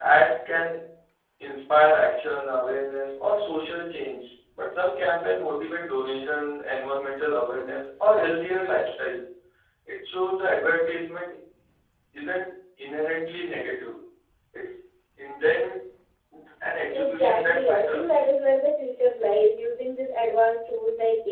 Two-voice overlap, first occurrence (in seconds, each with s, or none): 16.9 s